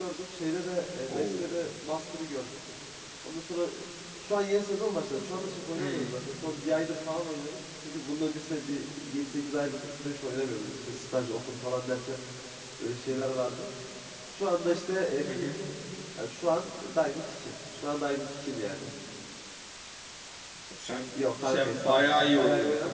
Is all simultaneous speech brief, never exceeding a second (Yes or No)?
No